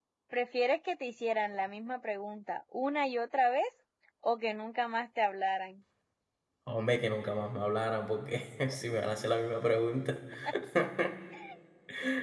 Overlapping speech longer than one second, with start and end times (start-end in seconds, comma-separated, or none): none